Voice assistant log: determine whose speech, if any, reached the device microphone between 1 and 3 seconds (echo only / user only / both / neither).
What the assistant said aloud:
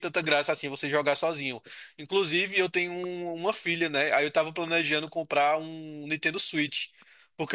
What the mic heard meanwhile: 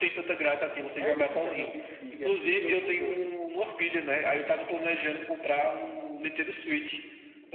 both